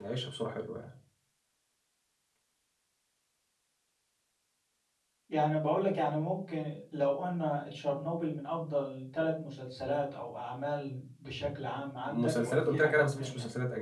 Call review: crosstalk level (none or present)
present